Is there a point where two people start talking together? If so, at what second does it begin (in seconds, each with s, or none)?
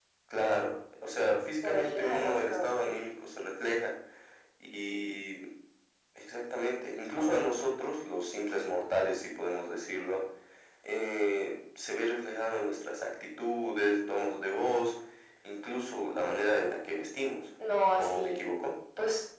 1.6 s